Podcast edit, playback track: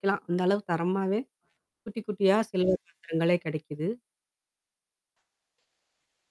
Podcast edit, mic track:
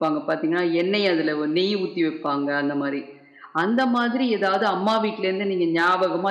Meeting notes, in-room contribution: present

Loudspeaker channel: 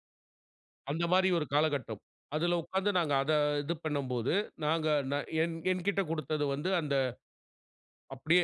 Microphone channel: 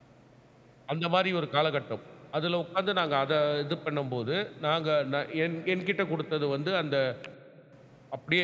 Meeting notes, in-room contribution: none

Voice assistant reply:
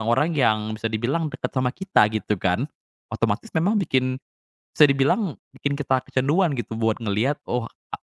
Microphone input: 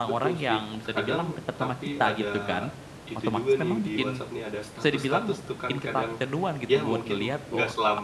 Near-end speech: present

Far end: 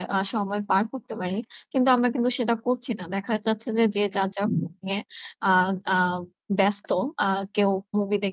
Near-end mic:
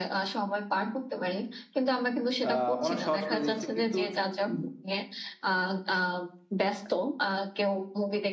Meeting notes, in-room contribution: present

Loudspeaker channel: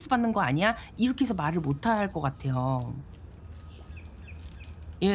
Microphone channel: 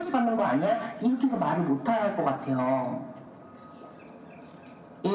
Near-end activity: none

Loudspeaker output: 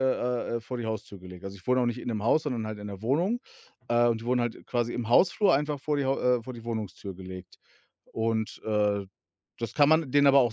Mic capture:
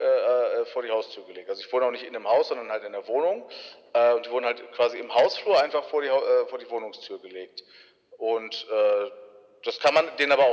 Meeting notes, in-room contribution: none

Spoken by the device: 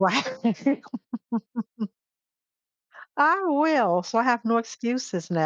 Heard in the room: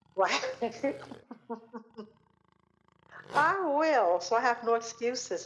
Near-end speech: none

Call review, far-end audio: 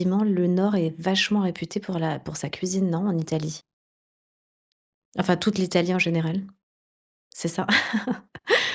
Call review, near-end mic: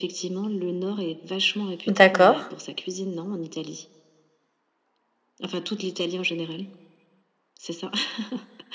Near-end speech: present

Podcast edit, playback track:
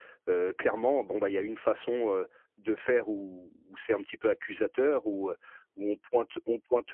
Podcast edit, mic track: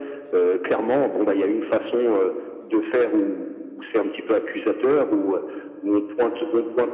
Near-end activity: none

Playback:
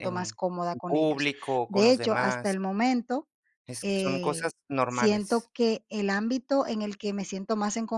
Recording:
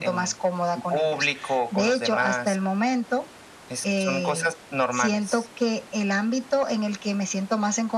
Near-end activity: none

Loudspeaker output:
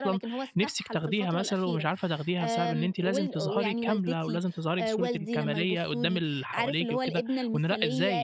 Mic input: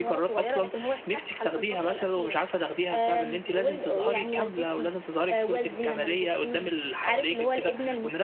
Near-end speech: none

